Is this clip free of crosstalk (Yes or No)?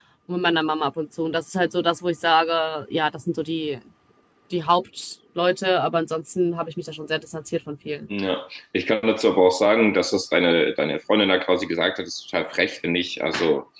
Yes